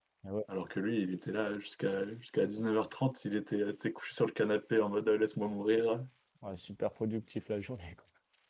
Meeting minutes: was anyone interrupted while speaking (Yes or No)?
No